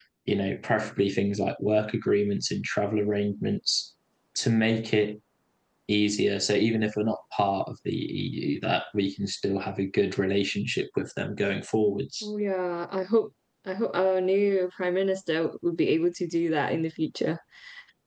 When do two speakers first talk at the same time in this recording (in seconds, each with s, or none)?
none